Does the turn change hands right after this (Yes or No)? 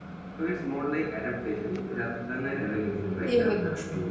Yes